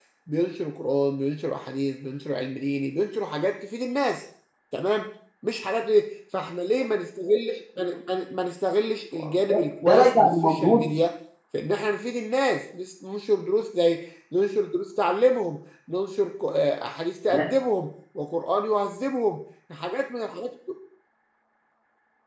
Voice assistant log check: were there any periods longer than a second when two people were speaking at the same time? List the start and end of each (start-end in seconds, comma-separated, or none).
9.5-10.8